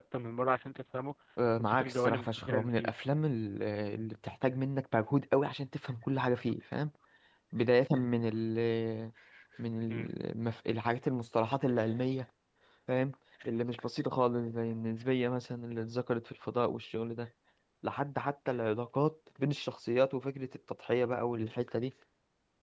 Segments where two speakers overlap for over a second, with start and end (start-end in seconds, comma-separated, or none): 1.6-2.9